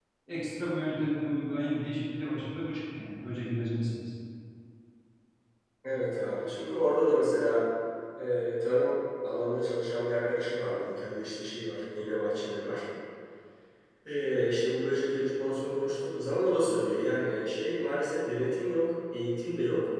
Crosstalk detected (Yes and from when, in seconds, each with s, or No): No